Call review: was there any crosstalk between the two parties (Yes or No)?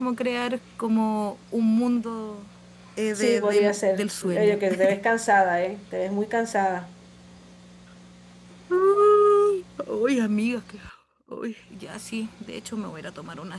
Yes